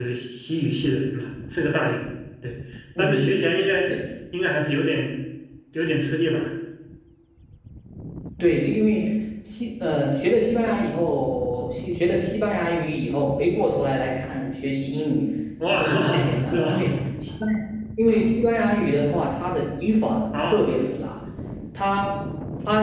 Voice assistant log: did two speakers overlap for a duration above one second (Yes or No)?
Yes